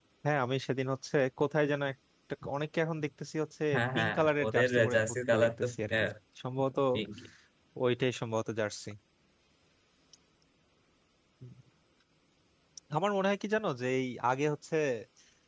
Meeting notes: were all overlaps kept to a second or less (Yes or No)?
No